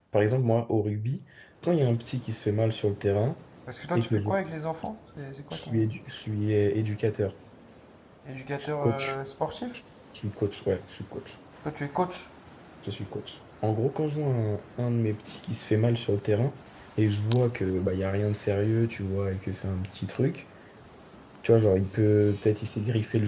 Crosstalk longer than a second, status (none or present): none